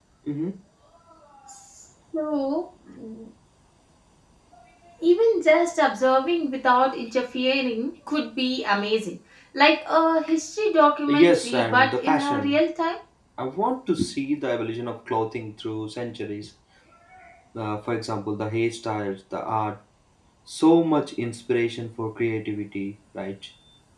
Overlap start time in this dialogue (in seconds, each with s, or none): 11.1 s